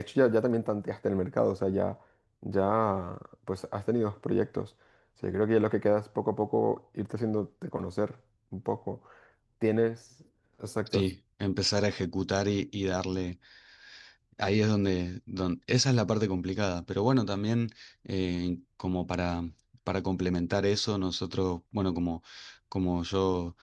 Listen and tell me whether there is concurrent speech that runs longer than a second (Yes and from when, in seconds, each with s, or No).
No